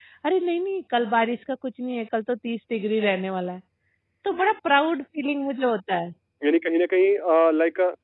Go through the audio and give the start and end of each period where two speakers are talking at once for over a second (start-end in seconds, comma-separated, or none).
none